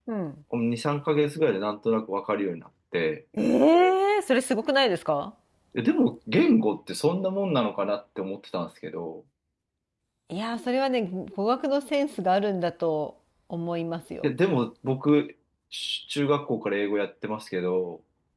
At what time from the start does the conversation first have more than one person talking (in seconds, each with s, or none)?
none